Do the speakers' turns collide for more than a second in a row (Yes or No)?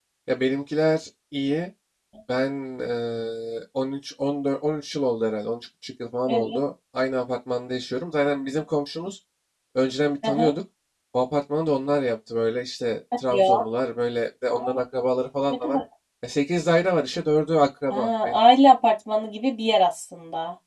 No